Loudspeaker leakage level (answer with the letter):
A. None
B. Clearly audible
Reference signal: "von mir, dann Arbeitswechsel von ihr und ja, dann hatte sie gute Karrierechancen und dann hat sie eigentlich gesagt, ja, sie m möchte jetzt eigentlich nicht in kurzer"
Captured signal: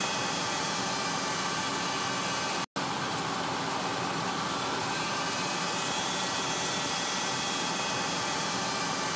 A